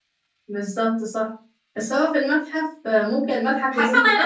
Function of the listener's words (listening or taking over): taking over